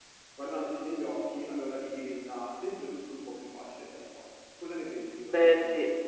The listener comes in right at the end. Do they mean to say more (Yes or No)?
Yes